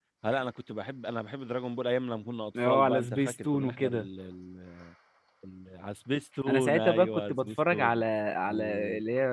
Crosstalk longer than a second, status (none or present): present